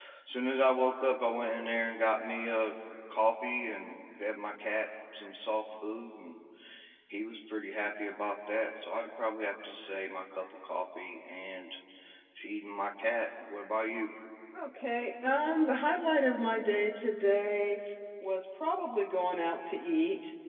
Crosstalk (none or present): none